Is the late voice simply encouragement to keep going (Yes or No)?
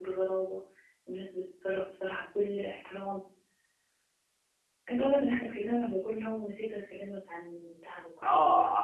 No